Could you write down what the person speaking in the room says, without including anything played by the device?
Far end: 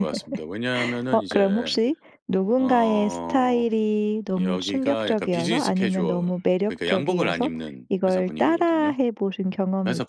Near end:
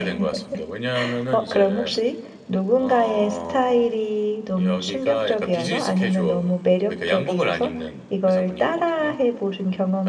none

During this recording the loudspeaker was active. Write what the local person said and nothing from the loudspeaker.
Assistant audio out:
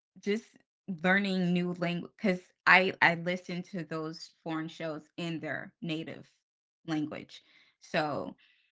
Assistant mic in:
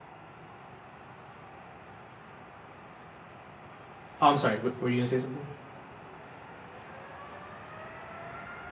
oh, I'm sorry, w- were you gonna say something?

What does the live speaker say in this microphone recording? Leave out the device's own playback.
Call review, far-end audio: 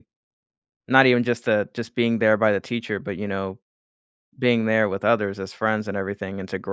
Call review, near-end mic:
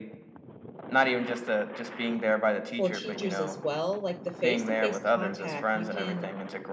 for teachers as well. Like the face-to-face contact, you can

